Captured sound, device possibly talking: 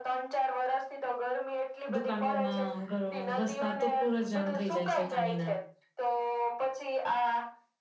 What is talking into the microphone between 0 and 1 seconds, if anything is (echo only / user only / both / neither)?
echo only